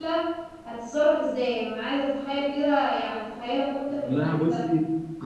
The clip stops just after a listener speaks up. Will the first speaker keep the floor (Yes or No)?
No